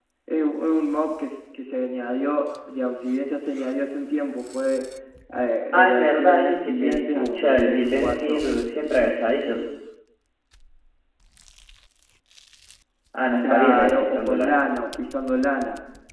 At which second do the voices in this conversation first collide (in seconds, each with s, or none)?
5.7 s